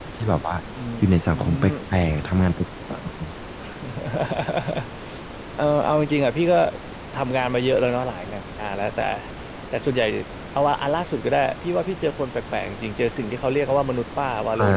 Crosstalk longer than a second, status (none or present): none